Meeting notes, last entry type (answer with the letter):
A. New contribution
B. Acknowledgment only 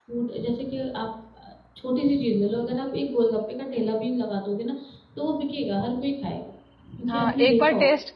A